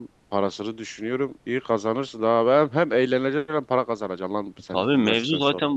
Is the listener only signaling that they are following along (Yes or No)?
No